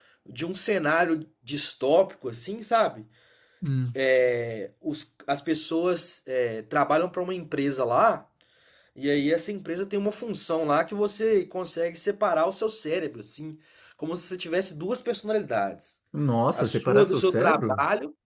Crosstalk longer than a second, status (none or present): present